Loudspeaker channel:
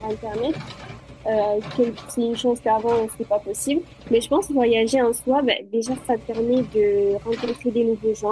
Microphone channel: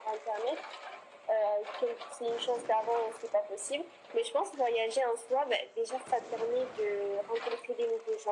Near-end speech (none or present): none